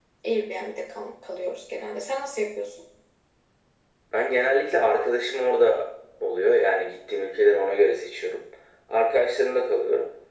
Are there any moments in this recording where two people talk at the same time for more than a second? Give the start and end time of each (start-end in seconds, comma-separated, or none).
none